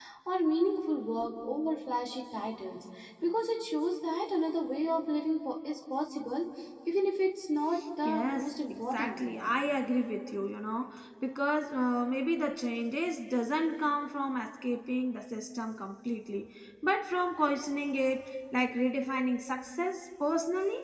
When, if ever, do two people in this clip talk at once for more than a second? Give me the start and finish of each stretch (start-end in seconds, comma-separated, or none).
8.0-9.4